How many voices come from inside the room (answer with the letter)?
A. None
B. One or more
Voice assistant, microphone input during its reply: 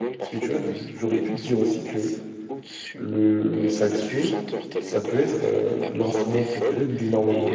B